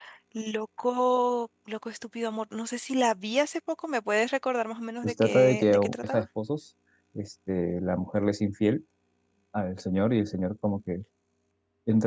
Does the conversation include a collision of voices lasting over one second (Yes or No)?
Yes